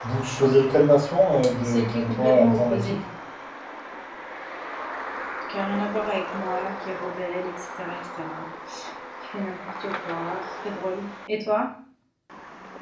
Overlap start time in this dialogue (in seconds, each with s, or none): 1.6 s